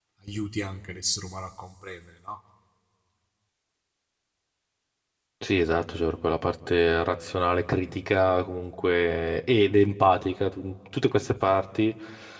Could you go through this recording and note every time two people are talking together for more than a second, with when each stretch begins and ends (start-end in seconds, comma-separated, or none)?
none